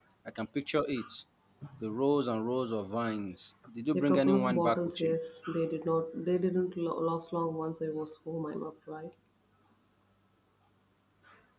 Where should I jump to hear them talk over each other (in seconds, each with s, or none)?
3.9 s